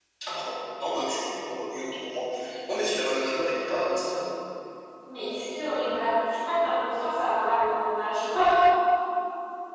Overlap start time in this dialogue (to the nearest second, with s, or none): none